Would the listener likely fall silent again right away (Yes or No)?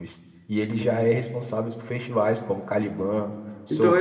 No